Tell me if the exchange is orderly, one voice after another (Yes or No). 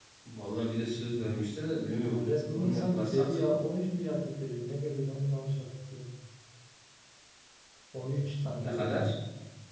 No